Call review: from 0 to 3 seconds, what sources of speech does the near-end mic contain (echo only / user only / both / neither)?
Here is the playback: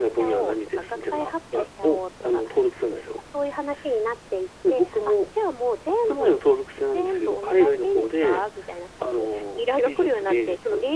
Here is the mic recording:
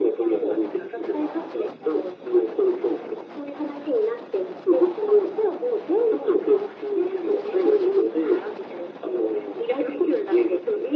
echo only